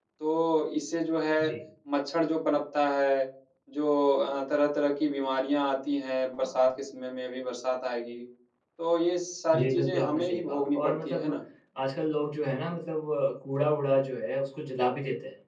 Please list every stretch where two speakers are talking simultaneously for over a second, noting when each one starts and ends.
9.5-11.3

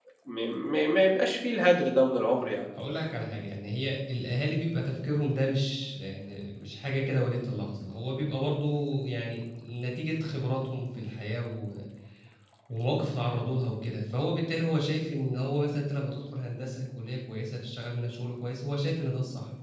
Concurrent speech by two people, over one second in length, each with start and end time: none

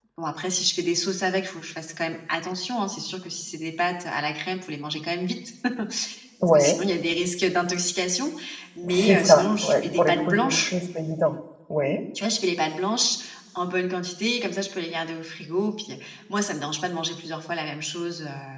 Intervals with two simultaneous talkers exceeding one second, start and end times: 9.0-10.7

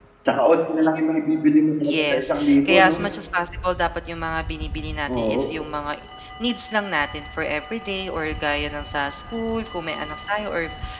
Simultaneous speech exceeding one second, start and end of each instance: 1.8-3.0

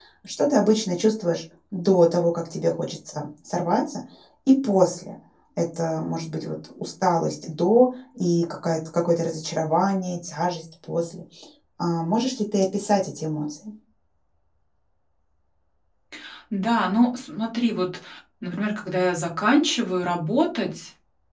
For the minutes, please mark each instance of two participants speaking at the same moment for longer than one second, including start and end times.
none

